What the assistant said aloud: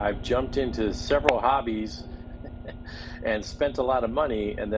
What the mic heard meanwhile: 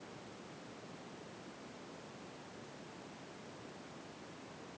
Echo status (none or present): none